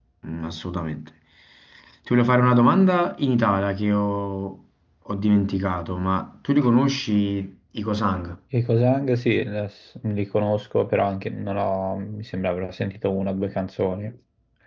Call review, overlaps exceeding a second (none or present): none